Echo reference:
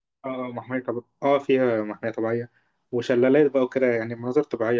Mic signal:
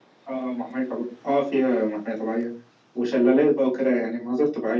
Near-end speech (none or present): none